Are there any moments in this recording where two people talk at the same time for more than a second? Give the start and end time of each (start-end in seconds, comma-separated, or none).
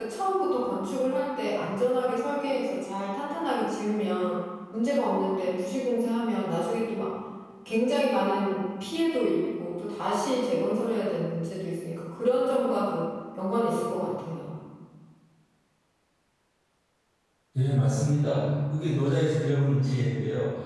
none